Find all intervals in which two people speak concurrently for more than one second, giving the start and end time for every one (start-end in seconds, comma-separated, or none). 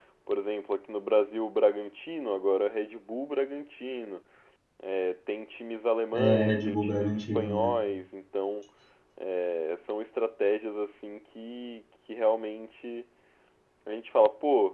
6.1-7.7